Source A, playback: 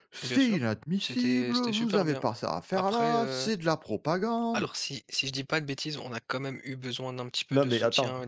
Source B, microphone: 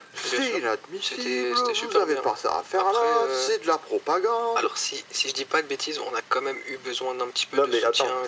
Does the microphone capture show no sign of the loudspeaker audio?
No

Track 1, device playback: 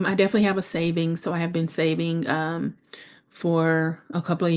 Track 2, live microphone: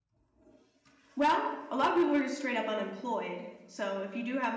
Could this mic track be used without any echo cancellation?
Yes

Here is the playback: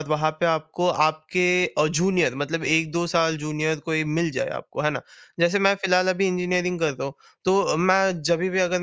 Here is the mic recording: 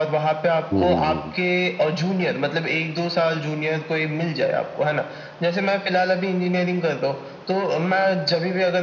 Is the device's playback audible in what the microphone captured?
Yes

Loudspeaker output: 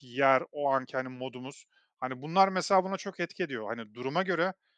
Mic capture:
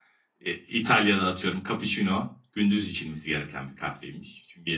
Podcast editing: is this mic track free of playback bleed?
Yes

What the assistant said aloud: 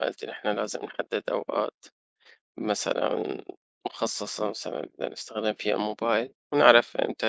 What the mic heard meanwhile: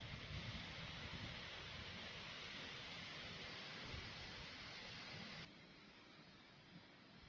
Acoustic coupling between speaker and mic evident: No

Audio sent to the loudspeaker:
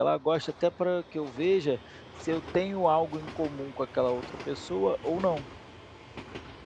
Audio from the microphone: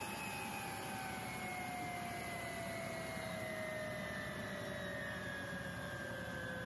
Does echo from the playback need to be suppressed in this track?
No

